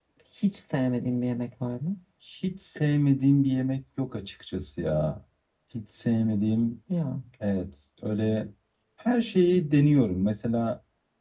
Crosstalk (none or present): none